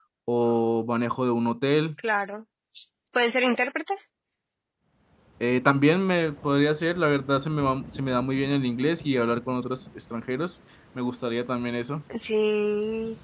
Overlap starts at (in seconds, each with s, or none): none